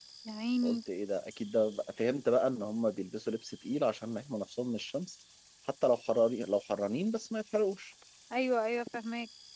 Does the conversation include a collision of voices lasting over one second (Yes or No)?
No